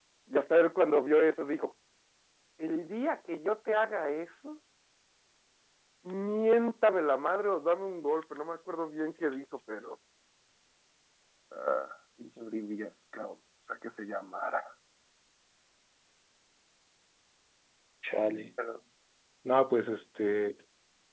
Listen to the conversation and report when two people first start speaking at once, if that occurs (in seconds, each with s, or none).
none